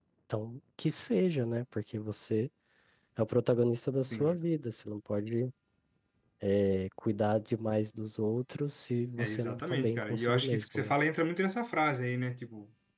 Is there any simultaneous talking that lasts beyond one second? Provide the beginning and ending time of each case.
9.2-10.9

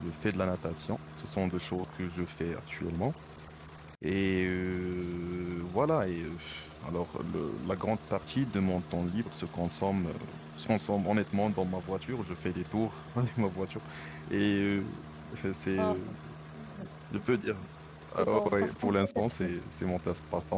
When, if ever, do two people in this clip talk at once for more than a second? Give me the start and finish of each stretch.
18.1-19.5

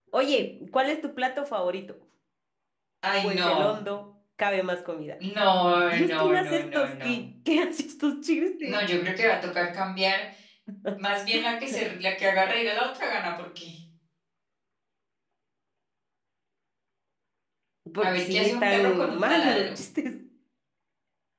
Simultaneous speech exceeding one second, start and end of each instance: 5.7-7.2, 18.0-19.7

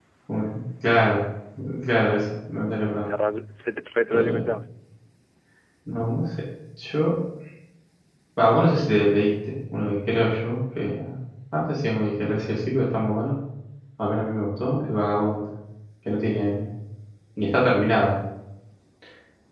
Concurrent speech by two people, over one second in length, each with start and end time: none

